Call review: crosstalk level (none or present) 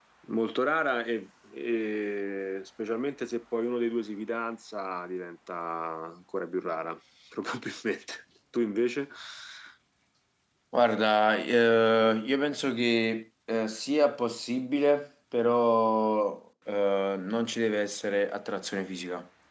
none